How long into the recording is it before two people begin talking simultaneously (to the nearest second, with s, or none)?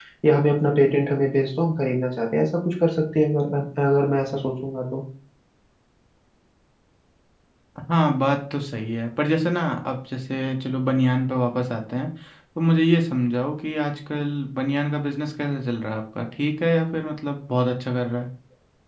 none